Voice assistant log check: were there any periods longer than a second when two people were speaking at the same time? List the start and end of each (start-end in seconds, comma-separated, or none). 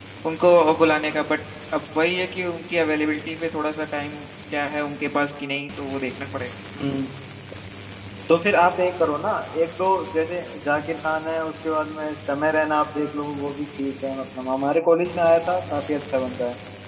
none